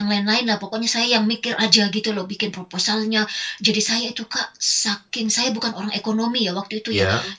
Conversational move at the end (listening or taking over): listening